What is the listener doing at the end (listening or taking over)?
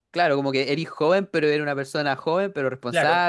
taking over